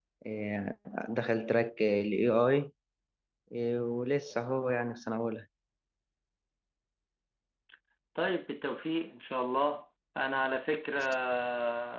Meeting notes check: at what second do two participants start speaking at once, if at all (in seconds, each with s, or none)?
none